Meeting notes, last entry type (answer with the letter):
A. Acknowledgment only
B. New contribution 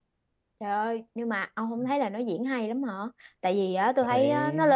A